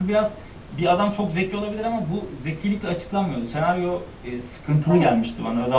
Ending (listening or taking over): listening